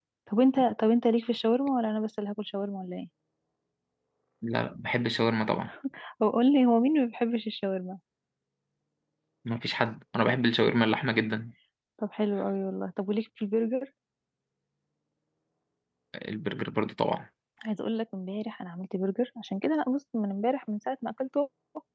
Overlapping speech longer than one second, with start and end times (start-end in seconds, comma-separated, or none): none